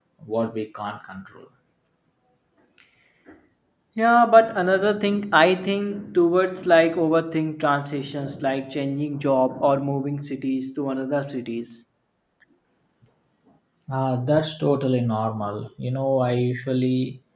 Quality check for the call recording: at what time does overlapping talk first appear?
none

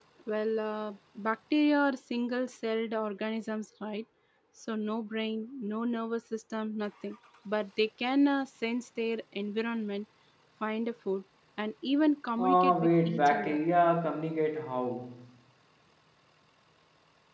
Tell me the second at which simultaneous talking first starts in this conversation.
12 s

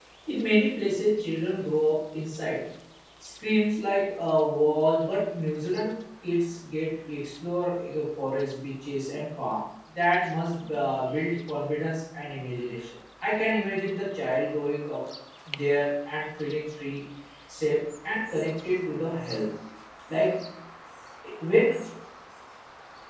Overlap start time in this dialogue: none

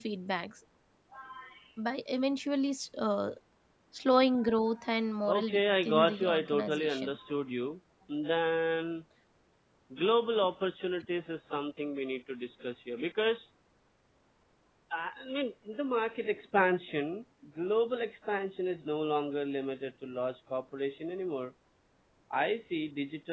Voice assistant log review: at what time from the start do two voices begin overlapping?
5 s

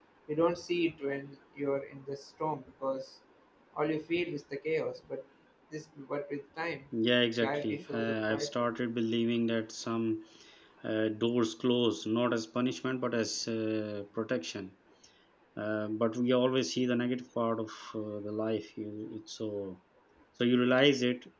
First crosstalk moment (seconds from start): 7 s

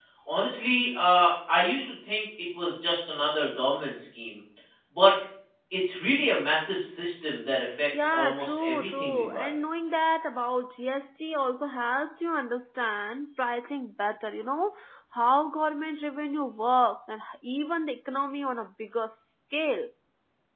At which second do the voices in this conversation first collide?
8 s

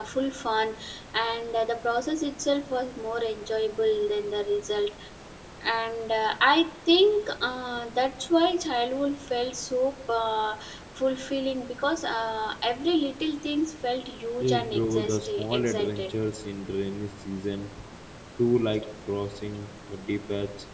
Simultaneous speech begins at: 14 s

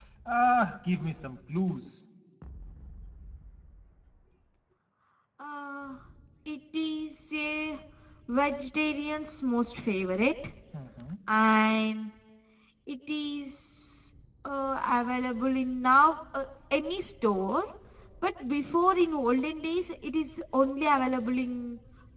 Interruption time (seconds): none

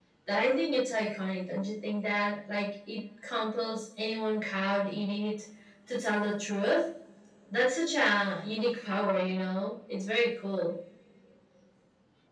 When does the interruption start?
none

